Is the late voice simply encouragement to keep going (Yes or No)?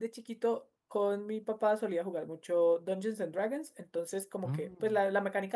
Yes